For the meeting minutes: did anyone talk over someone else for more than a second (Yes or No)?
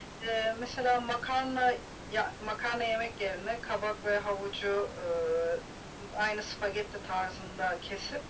No